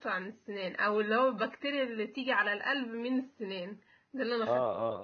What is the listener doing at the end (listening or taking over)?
taking over